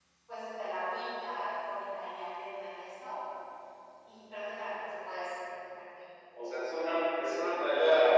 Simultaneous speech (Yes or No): No